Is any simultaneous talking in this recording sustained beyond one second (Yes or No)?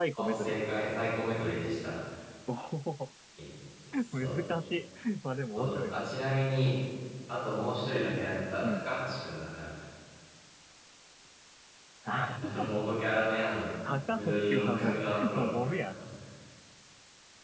Yes